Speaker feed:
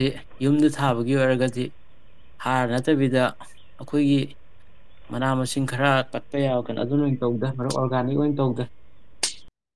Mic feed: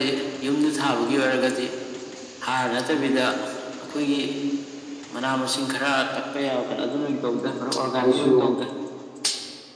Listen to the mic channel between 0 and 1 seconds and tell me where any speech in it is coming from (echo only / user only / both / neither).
echo only